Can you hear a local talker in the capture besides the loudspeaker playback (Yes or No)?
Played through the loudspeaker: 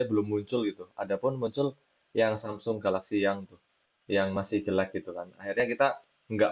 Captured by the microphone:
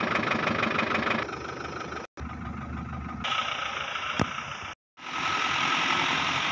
No